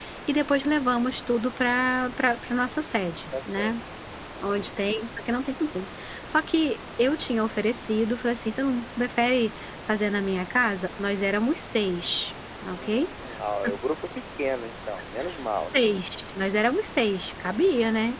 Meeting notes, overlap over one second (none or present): none